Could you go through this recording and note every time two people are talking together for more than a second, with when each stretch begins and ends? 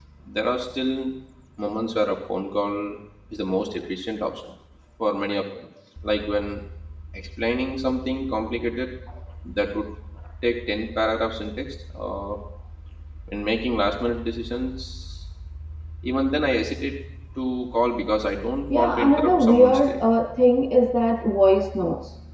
18.7-20.0

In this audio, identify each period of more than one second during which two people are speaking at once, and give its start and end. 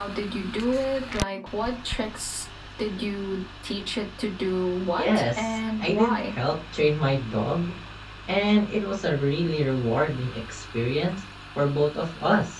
5.0-6.3

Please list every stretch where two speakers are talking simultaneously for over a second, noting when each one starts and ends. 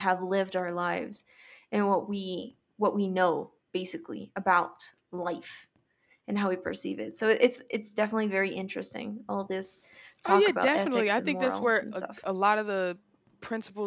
10.2-12.2

